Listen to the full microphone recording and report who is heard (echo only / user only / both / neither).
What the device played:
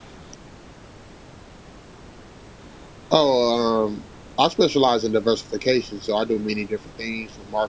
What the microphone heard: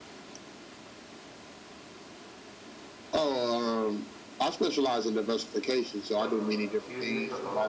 both